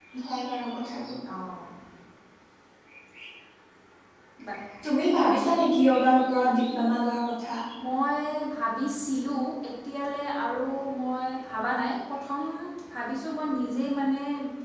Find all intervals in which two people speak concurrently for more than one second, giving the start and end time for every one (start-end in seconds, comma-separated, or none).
none